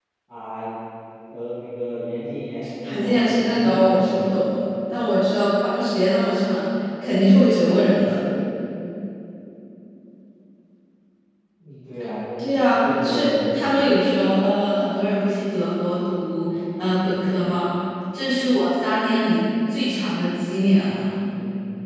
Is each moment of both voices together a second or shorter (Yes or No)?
No